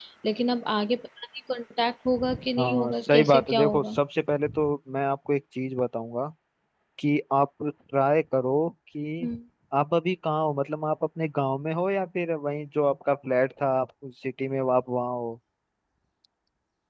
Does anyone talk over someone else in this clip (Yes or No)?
Yes